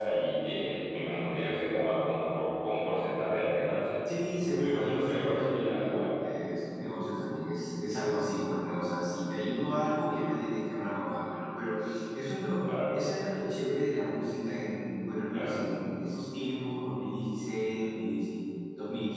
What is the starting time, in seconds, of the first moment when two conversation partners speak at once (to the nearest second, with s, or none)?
5 s